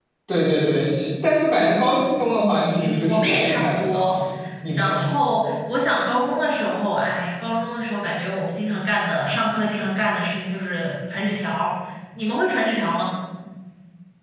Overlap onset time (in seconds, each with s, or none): 2.8 s